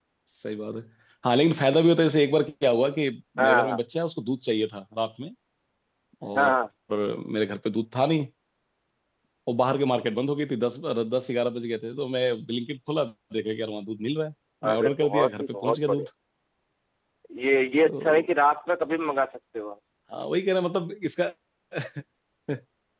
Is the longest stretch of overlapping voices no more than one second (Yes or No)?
No